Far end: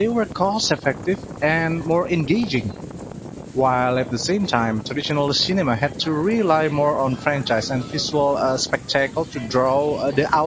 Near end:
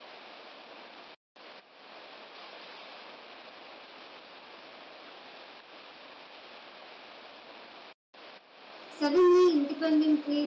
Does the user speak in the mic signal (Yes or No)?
Yes